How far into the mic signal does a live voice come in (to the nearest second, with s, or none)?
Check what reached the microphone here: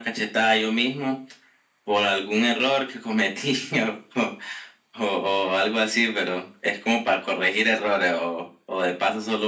none